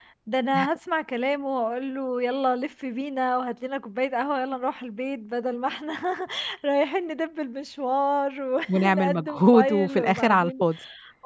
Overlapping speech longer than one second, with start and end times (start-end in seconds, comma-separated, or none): 8.7-10.6